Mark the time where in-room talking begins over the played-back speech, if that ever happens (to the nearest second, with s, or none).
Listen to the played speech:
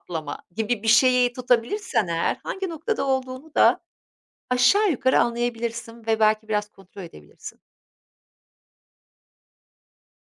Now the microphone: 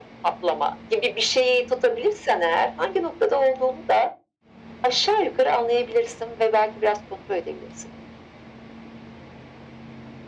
none